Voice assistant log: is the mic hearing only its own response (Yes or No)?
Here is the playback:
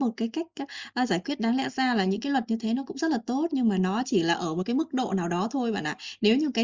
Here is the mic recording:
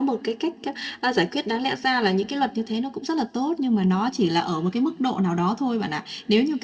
Yes